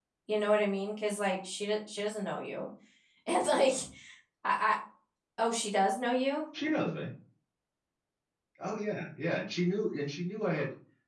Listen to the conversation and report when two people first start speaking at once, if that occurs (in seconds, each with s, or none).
none